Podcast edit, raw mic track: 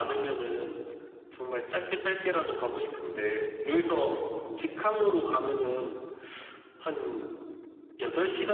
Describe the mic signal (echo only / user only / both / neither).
echo only